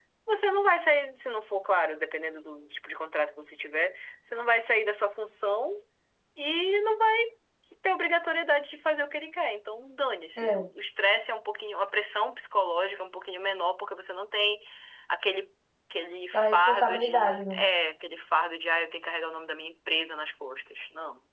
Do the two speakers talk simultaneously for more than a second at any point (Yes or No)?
Yes